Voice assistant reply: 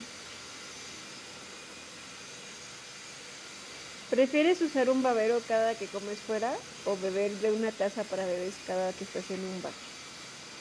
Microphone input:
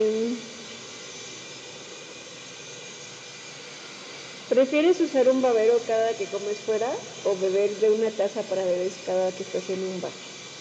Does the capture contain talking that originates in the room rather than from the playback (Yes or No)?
No